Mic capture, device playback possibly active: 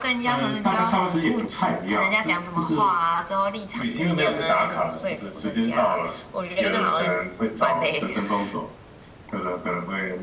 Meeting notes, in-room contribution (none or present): none